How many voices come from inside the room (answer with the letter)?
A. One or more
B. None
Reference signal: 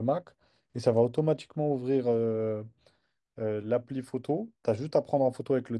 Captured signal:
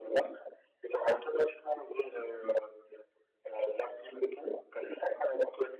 B